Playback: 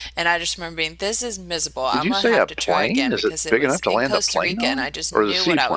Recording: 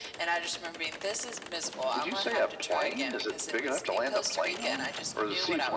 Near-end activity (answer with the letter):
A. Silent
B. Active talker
A